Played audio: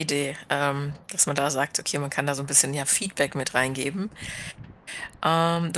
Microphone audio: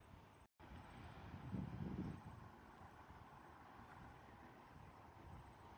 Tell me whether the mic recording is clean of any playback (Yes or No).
Yes